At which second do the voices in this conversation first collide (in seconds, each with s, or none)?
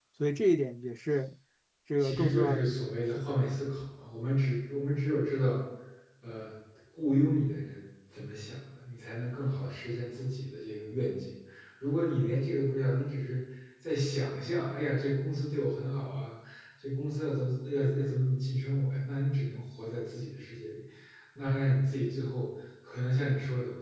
2.0 s